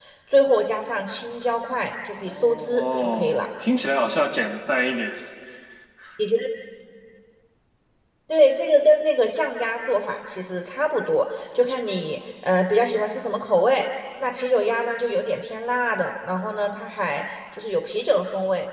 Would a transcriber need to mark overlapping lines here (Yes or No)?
Yes